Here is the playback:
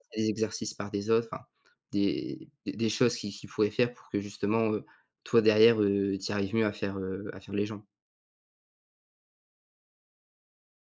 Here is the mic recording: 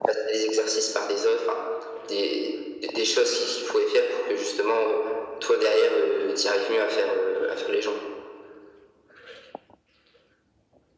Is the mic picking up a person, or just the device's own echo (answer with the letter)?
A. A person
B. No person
B